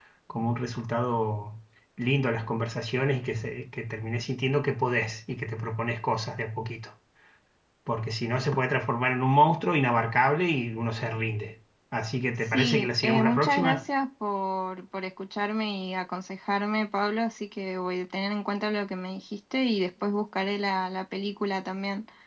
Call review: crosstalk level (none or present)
present